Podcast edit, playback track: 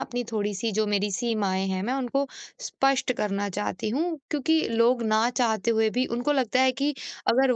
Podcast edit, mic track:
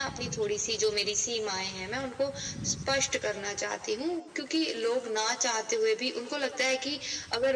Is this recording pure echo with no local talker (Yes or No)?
Yes